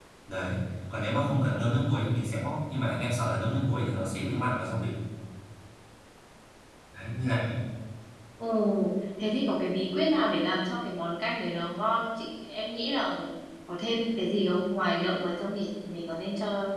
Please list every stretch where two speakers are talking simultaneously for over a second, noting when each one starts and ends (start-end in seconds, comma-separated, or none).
none